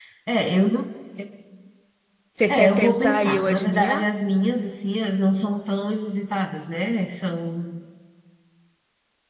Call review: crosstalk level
present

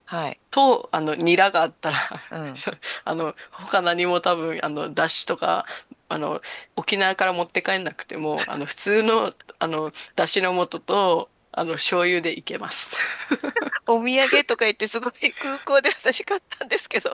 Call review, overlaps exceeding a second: none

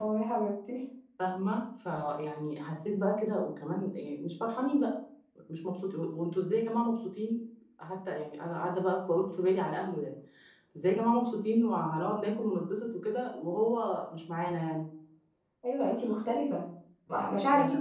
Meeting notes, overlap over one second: none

